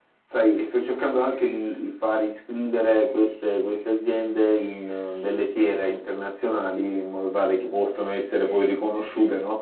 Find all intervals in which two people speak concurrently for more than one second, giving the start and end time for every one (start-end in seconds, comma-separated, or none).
none